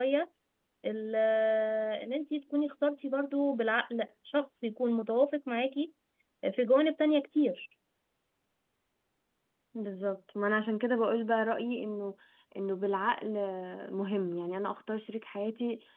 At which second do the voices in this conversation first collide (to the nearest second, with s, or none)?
none